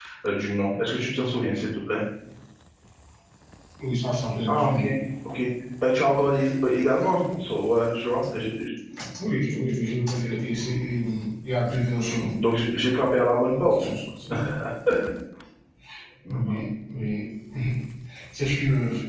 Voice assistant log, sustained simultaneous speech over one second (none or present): none